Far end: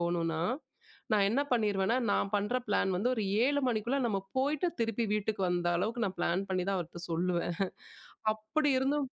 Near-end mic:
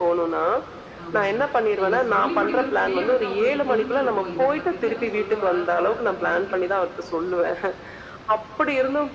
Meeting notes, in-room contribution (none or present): present